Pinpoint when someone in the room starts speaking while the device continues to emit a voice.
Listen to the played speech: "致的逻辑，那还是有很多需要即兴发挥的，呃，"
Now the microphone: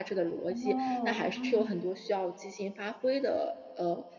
0.5 s

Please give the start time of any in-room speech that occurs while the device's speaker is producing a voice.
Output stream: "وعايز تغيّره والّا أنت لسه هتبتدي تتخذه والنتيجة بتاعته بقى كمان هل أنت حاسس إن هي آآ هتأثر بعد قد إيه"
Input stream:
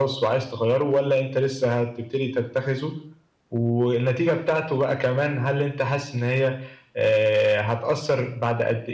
none

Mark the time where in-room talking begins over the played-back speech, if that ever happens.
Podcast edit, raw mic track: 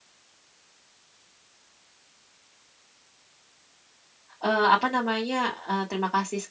4.4 s

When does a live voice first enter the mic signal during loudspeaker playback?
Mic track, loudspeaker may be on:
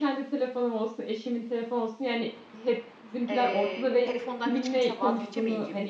3.3 s

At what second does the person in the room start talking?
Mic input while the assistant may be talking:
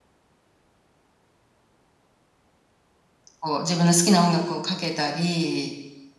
3.4 s

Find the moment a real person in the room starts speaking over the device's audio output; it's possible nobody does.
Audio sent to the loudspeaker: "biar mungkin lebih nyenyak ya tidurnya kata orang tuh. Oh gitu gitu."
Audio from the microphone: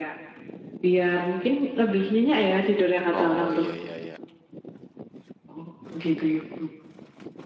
3.1 s

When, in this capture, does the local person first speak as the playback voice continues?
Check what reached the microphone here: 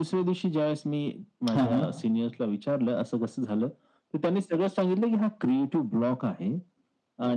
1.5 s

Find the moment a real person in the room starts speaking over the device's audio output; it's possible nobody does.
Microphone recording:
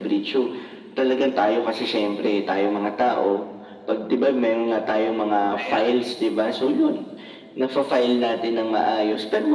5.6 s

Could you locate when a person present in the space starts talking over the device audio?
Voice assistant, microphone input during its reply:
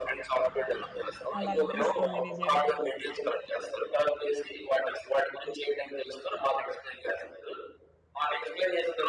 1.4 s

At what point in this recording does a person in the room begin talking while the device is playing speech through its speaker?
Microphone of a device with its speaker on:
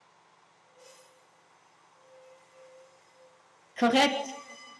3.8 s

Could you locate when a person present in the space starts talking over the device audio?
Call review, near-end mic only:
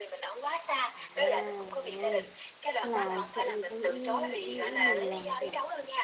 0.9 s

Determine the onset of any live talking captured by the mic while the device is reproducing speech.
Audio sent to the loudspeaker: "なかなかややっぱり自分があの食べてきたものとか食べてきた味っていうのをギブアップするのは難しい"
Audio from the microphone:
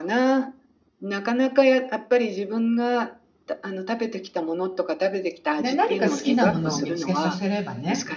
5.6 s

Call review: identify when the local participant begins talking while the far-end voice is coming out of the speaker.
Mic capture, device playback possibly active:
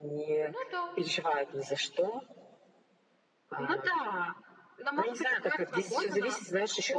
0.4 s

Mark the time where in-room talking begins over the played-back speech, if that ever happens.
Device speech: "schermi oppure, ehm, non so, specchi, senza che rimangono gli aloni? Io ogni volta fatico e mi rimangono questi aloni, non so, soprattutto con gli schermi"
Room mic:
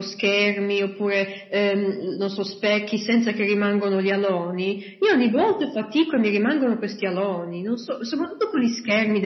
none

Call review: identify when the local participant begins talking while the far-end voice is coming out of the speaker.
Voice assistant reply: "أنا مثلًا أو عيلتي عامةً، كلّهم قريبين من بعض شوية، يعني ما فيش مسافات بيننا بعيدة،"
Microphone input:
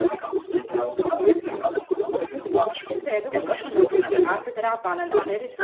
2.9 s

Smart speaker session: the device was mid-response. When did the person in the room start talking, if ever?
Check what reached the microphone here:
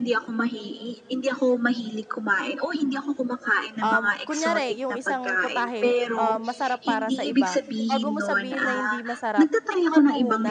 3.8 s

